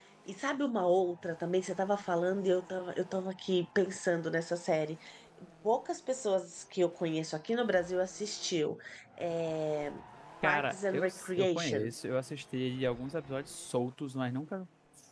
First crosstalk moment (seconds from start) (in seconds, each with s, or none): 10.4 s